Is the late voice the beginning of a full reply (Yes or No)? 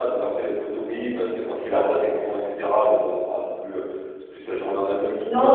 Yes